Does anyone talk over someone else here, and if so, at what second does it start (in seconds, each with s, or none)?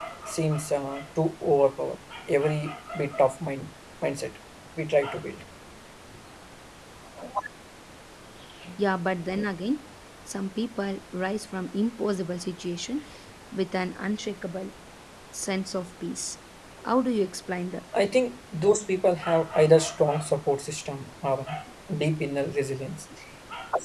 none